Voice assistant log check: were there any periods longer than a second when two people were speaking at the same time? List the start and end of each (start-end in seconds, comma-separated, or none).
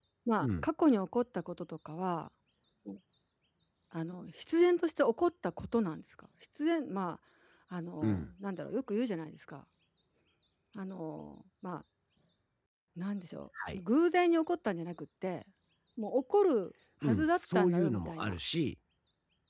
17.0-18.4